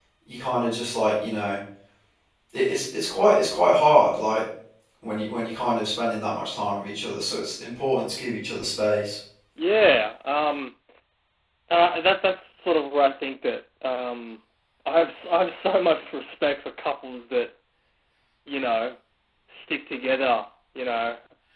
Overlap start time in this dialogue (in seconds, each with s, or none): none